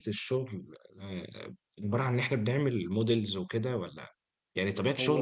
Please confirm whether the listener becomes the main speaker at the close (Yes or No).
No